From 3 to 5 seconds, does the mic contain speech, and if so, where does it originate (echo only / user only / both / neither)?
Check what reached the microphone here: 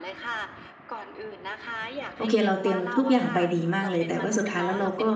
both